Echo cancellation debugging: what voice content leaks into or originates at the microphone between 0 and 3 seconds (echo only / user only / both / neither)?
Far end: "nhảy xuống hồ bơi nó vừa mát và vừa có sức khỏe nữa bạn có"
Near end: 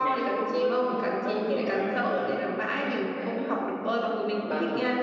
both